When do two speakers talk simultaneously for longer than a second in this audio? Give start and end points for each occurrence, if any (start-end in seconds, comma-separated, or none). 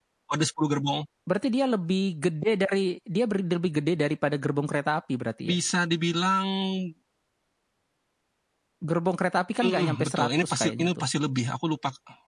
9.6-11.0